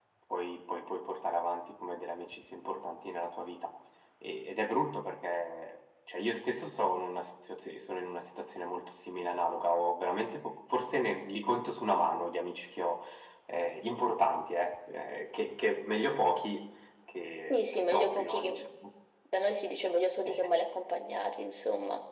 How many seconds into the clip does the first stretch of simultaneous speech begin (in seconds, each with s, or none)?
17.4 s